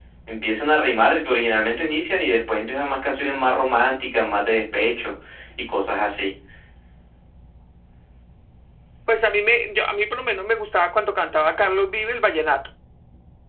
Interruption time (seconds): none

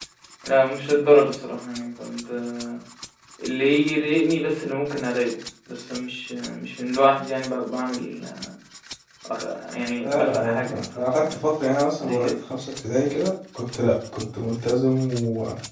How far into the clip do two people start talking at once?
10 s

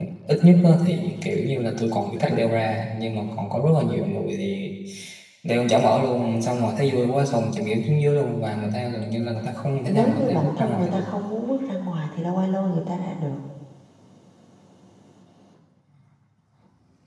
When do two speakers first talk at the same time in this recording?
10 s

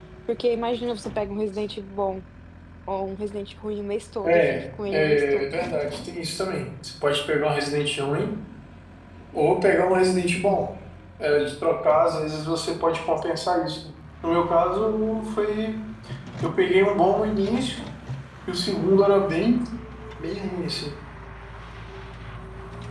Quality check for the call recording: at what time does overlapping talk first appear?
4 s

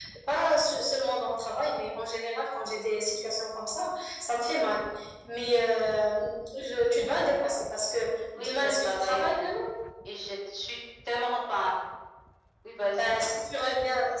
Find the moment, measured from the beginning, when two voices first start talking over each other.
8 s

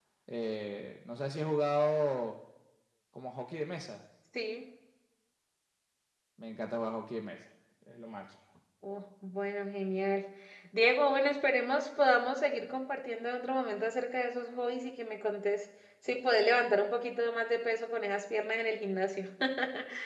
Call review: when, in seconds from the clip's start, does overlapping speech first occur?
none

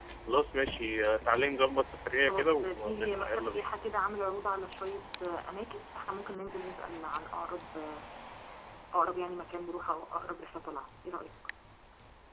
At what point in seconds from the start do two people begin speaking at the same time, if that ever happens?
2 s

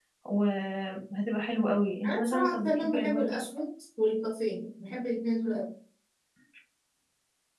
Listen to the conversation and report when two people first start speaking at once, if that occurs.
2 s

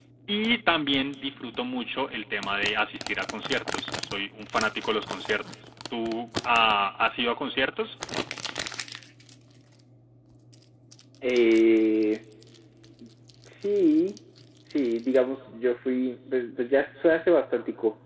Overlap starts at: none

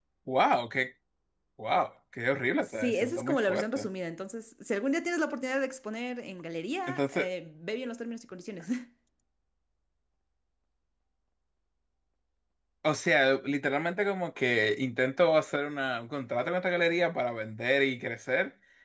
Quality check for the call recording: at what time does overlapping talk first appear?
3 s

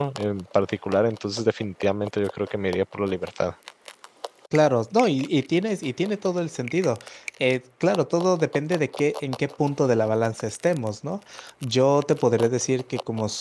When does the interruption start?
none

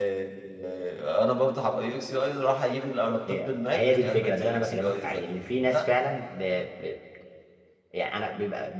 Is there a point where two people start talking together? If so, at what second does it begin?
3 s

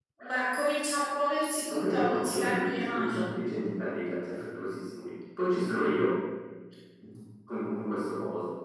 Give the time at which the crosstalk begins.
2 s

